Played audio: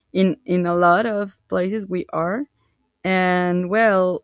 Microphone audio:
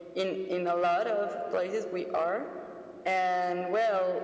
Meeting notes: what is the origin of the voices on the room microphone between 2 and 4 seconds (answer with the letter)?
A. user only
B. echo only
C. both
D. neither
B